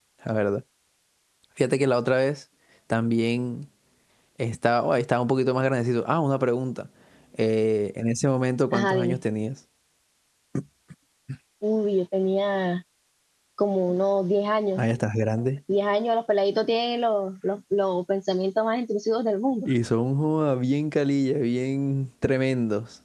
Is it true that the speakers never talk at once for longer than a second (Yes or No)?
Yes